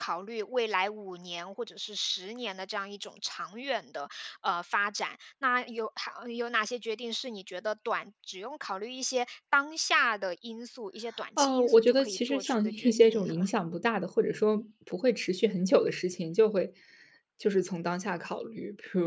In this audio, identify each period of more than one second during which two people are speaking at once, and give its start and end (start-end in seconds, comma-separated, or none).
11.4-13.5